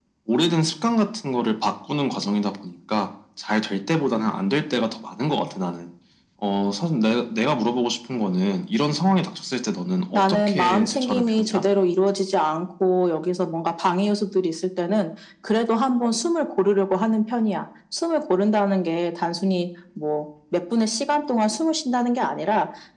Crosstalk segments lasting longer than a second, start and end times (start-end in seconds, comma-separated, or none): 10.1-11.6